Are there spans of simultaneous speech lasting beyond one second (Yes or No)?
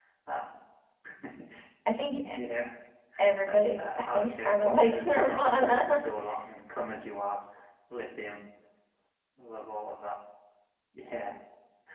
Yes